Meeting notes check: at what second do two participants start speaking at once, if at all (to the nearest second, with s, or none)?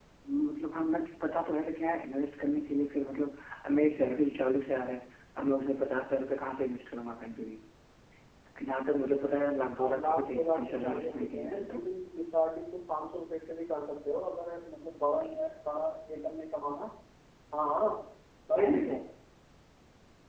10 s